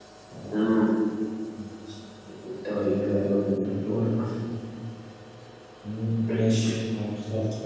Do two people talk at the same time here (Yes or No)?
Yes